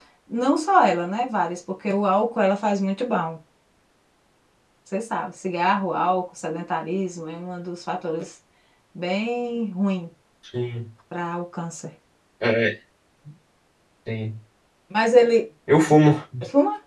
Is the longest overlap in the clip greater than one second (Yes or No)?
No